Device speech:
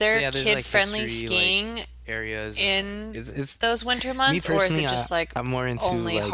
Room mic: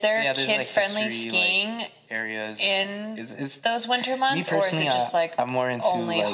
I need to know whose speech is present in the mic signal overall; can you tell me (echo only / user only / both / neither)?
echo only